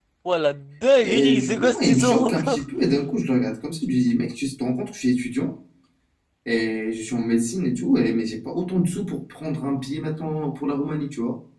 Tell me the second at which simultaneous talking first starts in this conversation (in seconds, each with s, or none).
1.0 s